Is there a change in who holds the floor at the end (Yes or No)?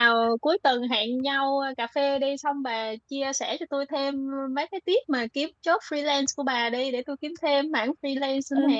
Yes